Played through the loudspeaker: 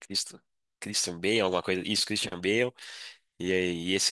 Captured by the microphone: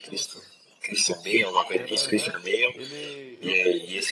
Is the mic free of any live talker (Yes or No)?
No